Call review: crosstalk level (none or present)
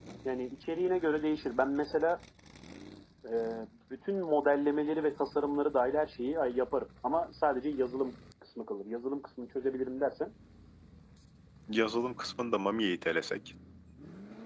none